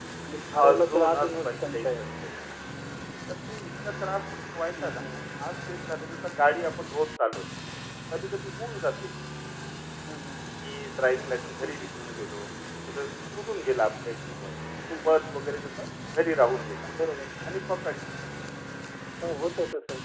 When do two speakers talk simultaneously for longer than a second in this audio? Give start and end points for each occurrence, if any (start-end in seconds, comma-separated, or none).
0.6-2.0